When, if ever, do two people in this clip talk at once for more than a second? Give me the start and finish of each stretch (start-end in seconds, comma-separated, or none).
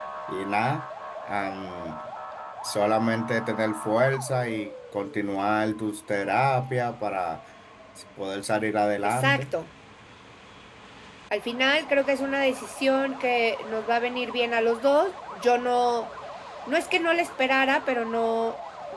none